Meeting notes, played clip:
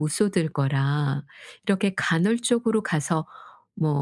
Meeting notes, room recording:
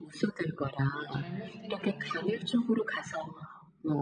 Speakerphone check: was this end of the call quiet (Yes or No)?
No